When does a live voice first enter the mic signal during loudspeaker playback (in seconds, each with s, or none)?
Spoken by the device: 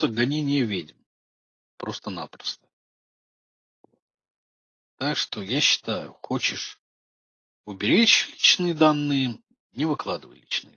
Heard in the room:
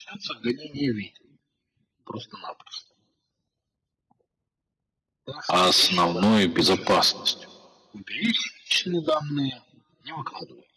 5.5 s